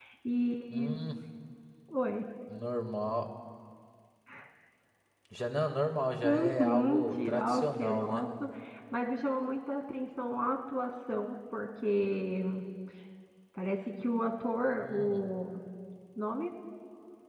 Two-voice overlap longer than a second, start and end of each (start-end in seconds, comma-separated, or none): 6.2-8.3